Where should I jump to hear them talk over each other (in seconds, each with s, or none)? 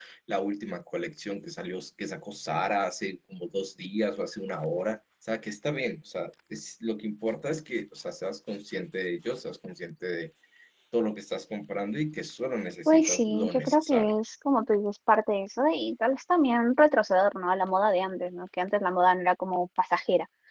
12.9 s